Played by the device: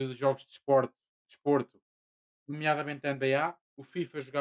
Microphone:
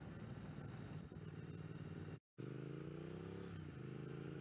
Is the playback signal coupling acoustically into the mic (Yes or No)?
No